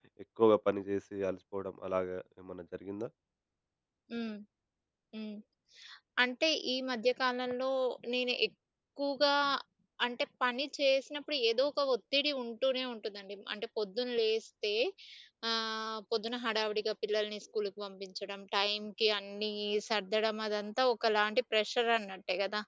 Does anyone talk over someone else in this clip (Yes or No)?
No